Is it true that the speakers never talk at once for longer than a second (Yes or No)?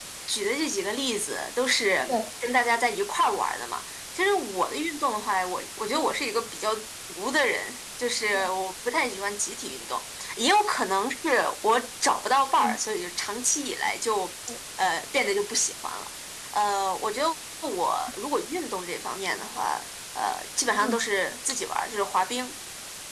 Yes